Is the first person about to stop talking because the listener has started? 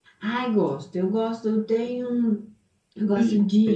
No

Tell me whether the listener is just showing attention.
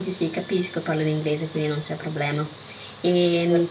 Yes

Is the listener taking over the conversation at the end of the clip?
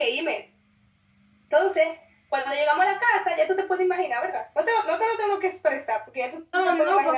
Yes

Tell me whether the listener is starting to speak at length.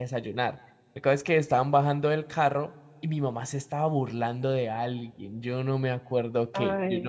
No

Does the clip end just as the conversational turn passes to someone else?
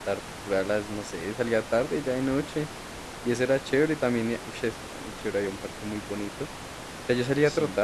No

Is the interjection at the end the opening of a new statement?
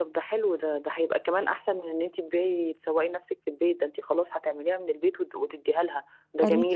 No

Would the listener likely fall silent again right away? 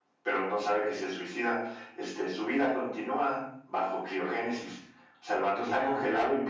Yes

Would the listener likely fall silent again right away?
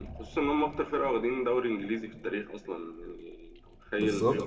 Yes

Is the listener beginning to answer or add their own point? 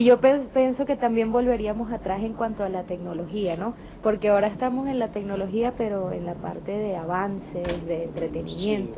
No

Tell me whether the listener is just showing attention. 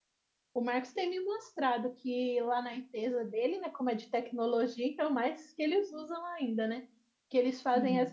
Yes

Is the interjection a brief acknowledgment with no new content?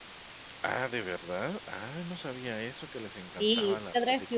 No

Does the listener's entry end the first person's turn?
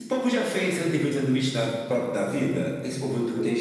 No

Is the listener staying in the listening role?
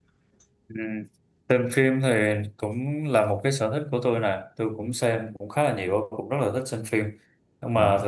Yes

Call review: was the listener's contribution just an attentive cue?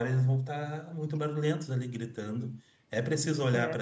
Yes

